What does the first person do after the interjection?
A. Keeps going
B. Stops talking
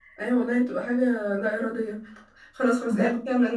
A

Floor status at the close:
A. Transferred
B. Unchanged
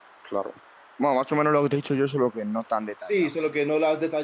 A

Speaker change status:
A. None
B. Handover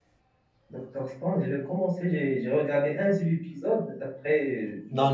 B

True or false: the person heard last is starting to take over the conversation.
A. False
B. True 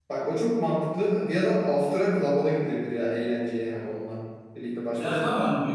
B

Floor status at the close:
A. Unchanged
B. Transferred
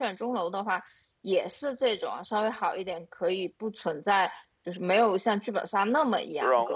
B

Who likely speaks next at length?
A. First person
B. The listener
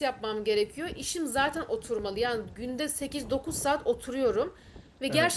A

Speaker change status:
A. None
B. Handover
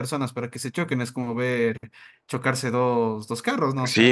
B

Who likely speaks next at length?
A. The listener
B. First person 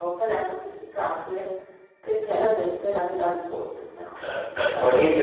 A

